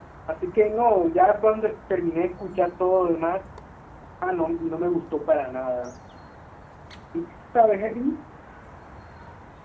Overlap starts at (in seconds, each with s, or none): none